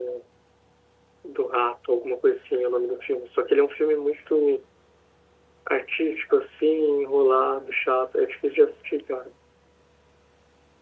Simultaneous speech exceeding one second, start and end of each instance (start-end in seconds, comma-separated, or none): none